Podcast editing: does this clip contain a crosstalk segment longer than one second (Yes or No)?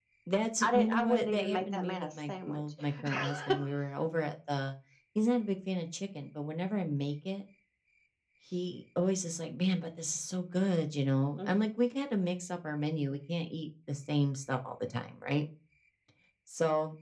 Yes